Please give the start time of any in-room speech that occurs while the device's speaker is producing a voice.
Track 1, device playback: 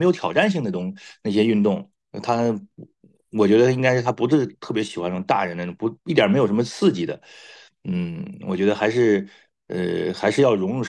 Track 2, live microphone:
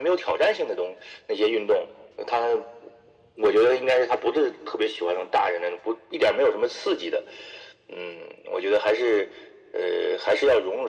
none

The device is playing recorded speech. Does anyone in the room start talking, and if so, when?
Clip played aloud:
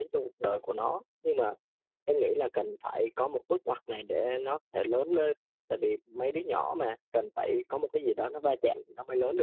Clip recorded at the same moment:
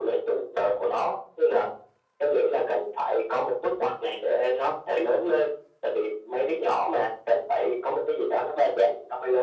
none

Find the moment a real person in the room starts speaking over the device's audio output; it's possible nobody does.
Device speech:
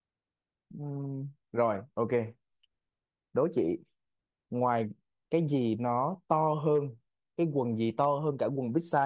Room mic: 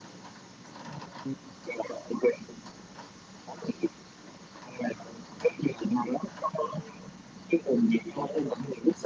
none

